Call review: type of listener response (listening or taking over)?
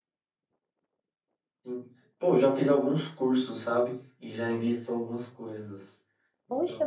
taking over